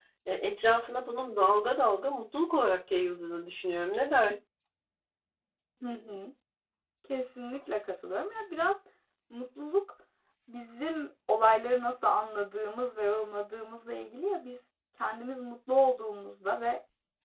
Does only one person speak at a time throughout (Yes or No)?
Yes